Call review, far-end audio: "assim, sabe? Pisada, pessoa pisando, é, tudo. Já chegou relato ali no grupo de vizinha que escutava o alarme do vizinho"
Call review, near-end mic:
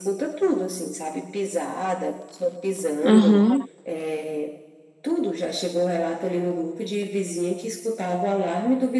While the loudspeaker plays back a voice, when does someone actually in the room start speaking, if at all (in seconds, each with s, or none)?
3.0 s